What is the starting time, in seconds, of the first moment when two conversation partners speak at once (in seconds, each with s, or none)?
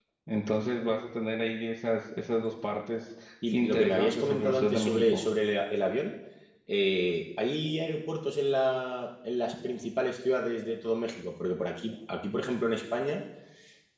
3.5 s